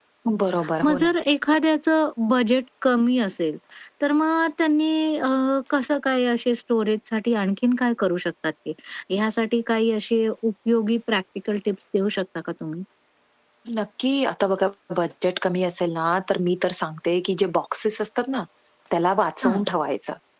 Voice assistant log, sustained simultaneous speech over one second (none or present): none